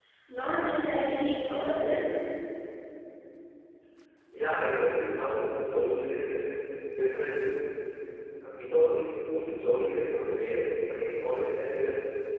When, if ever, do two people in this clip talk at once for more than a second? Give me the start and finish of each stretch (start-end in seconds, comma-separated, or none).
none